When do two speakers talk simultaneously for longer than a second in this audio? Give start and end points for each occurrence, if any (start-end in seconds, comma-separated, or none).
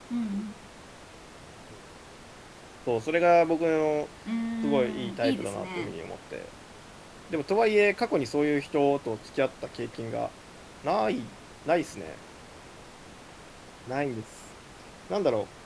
4.6-5.9